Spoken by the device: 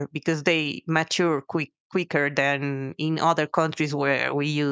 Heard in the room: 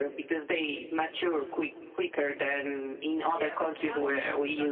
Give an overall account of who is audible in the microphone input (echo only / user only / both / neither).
both